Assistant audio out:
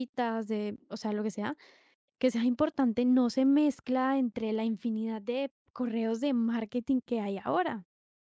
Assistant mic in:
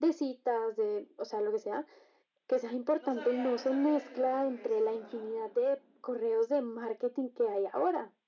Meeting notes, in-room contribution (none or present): present